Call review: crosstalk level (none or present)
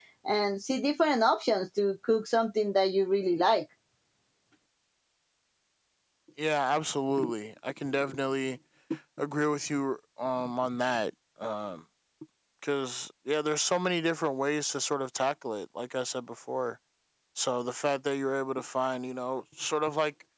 none